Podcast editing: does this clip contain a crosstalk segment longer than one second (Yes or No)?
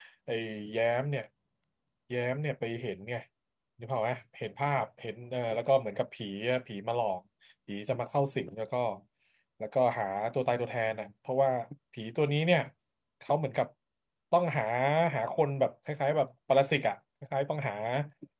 No